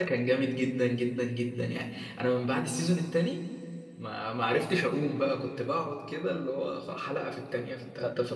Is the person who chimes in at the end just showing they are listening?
No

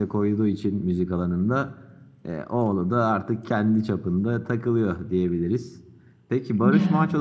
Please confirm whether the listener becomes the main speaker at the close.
No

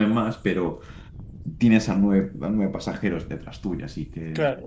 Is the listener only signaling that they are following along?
No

